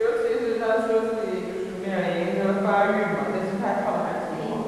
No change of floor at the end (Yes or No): No